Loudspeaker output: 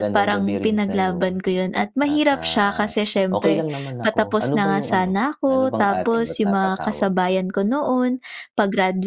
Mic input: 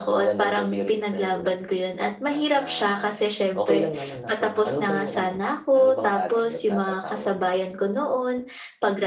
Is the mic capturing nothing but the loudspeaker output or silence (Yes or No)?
Yes